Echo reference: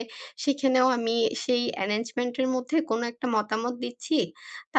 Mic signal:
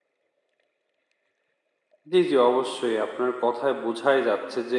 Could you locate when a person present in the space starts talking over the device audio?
2 s

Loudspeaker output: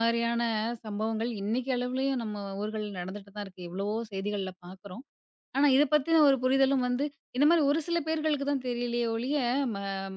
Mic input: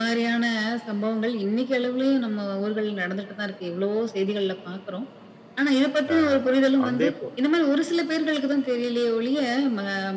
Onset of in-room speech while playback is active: 6 s

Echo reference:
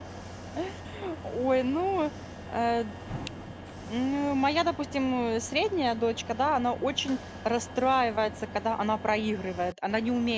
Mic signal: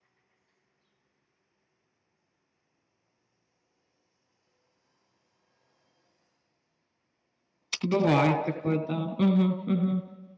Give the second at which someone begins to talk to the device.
8 s

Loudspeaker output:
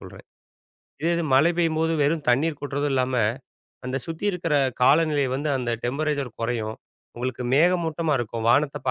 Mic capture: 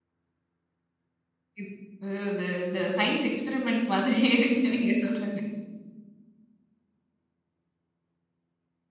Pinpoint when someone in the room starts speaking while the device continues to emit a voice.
2 s

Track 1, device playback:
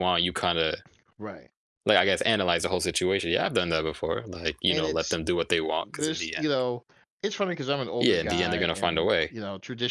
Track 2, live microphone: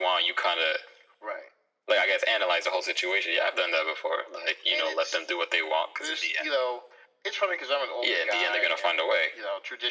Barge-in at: none

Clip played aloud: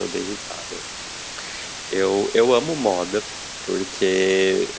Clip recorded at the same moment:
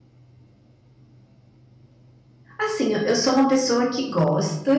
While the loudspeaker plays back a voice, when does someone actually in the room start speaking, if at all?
3 s

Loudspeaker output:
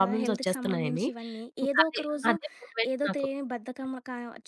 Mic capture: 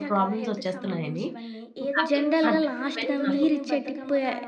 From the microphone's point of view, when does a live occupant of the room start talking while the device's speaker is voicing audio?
2 s

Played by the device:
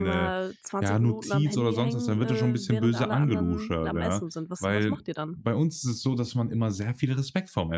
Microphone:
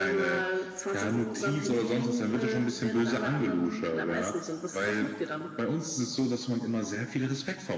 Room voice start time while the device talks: none

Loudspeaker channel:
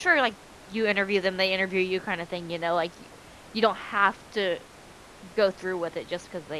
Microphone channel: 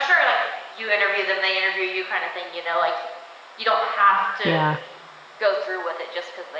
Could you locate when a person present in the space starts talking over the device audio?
4 s

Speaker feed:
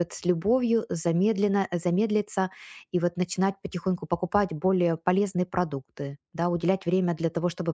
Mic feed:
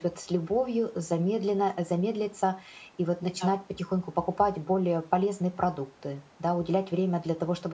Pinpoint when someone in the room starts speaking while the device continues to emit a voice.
3 s

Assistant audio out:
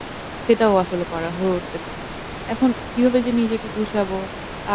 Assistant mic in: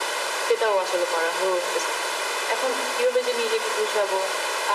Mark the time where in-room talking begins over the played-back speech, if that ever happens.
none

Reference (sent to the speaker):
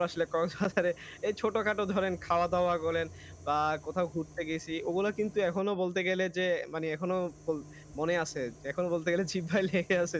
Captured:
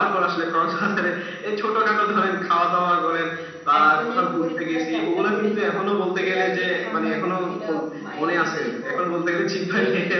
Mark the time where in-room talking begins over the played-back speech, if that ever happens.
4 s

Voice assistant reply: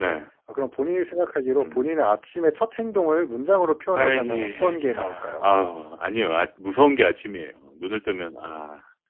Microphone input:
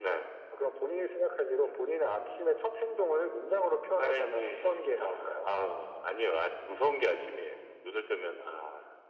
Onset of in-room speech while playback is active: none

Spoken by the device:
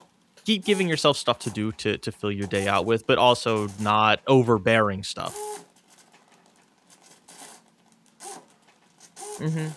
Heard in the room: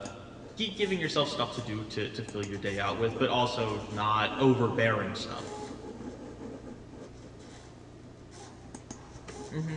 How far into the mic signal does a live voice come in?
none

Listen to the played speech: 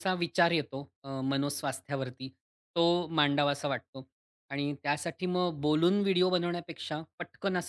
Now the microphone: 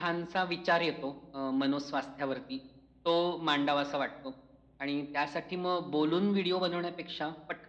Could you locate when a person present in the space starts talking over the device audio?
none

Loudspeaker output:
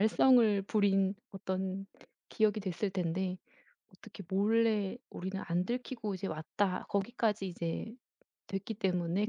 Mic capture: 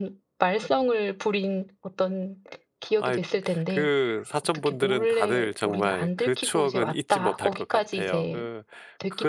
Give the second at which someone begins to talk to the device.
3 s

